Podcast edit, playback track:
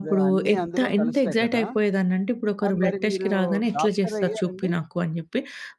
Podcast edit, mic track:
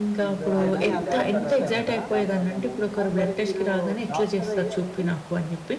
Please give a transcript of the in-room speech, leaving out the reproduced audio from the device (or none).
ఇదేనా ఈ ల్యాబ్‌కెళ్ళడము దానివల్లేనా అండి?